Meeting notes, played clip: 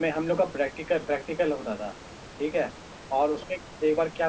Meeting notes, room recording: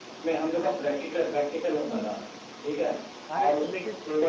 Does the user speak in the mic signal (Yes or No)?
Yes